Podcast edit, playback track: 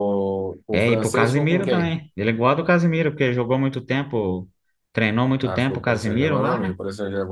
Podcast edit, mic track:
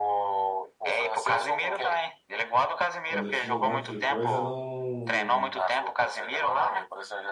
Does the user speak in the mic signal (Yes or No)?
Yes